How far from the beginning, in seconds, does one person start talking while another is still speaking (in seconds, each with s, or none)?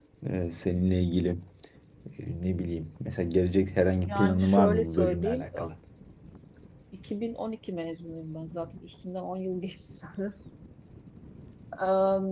4.0 s